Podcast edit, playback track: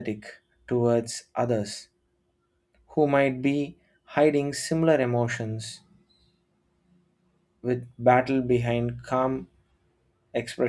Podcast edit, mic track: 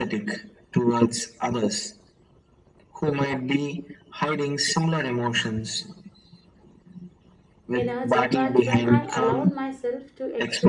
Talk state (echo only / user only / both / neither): both